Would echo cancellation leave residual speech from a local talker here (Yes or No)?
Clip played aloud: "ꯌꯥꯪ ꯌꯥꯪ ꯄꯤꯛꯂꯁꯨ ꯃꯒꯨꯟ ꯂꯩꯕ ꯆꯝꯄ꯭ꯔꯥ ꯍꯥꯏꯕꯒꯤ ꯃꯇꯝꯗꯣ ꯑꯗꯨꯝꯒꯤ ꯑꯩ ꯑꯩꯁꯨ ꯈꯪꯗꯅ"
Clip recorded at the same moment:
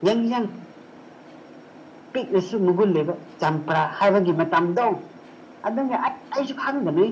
No